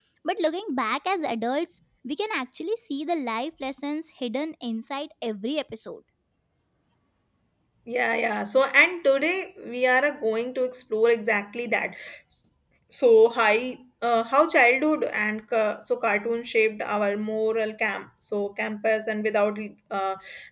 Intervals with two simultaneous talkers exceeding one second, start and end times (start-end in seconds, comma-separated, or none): none